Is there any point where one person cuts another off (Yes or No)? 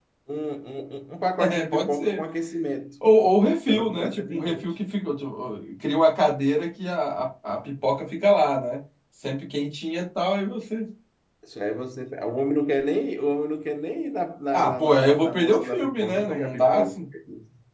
Yes